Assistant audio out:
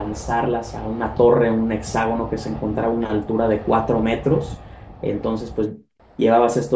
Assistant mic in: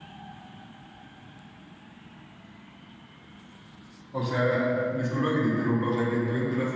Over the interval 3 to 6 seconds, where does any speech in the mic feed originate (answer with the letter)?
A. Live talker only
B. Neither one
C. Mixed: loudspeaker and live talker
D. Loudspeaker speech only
A